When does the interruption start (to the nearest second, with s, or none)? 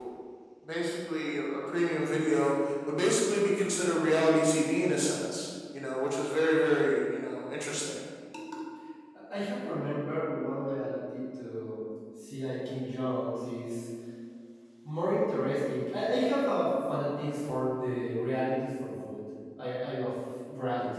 none